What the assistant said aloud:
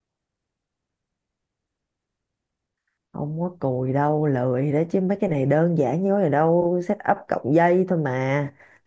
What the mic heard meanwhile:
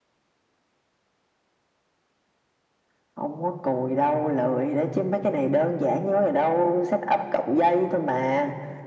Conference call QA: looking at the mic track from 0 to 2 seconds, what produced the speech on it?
neither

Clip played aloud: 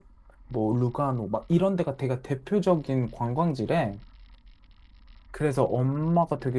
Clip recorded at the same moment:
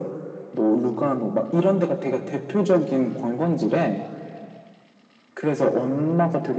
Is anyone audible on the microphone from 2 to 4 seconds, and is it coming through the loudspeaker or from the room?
echo only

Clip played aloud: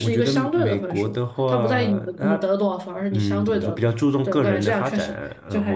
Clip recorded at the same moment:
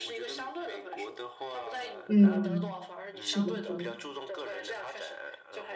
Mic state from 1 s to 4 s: both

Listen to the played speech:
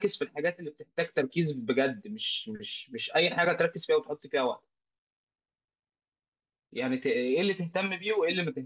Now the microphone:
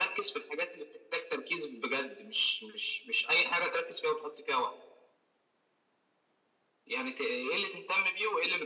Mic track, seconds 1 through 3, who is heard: echo only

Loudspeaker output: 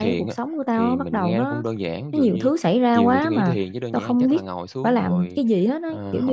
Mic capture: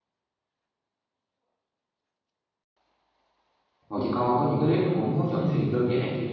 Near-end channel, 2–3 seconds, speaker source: neither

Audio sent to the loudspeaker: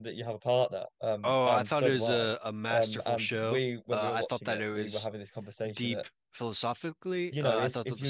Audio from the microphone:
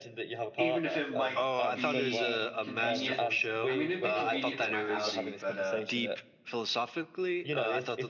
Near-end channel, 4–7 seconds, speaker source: both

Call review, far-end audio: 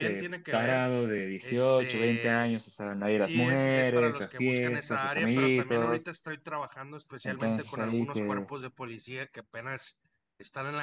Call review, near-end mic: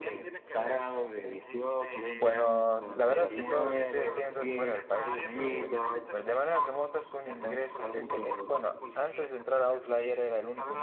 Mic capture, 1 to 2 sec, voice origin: echo only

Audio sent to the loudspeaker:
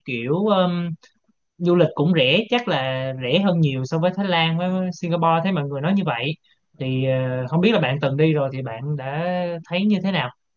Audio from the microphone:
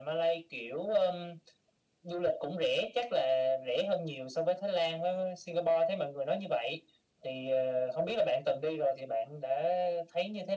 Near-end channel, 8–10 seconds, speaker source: echo only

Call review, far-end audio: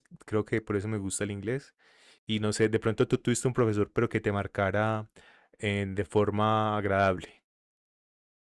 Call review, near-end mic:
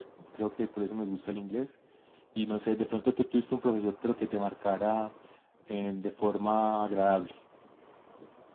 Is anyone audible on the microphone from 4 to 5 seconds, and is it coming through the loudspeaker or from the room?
echo only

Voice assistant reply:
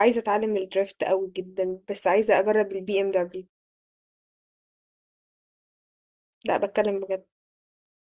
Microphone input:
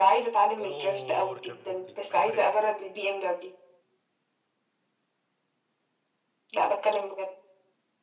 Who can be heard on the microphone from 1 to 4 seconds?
both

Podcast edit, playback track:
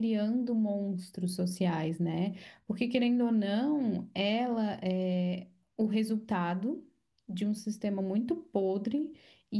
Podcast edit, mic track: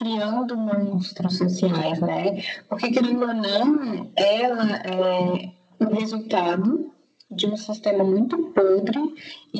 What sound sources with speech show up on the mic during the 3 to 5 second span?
echo only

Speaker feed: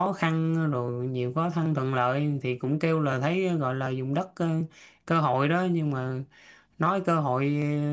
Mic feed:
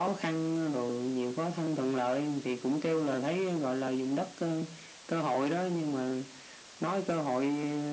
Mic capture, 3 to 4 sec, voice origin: echo only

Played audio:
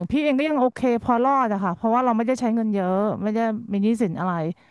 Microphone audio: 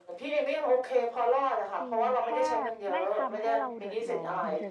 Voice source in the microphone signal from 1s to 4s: both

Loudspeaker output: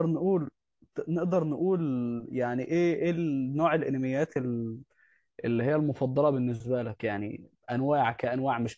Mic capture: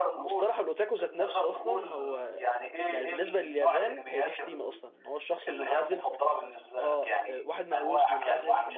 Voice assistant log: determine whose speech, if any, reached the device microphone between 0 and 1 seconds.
both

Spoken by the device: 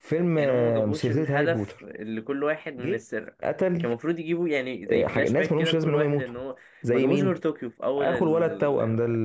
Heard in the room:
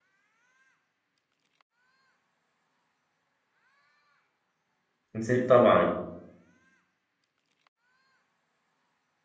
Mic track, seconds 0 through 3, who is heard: neither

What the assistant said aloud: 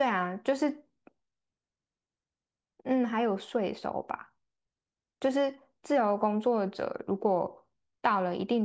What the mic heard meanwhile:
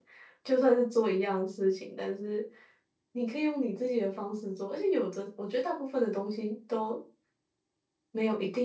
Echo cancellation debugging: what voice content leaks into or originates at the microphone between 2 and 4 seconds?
user only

